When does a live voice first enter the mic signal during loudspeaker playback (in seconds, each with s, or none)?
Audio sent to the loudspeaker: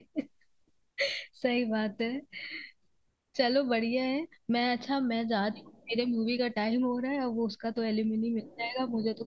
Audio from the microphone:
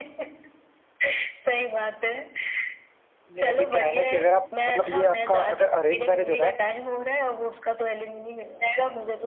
3.3 s